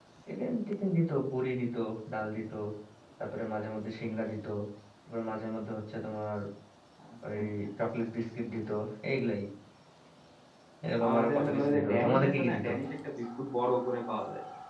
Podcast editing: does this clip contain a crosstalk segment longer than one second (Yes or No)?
Yes